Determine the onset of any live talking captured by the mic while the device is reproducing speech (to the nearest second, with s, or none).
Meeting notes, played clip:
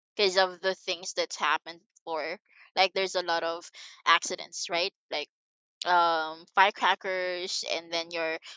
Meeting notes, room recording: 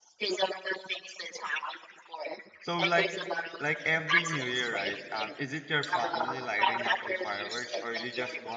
3 s